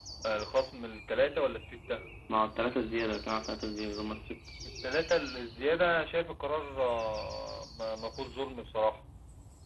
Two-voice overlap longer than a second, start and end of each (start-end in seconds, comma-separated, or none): none